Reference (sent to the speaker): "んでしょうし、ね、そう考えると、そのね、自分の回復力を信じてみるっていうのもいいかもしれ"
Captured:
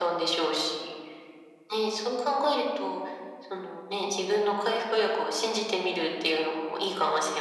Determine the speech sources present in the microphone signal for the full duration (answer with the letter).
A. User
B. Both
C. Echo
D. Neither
C